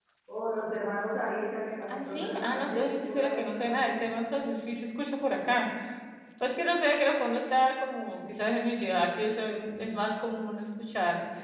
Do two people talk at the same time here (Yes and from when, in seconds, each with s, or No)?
Yes, from 1.9 s